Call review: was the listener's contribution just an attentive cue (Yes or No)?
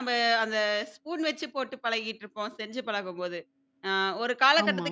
Yes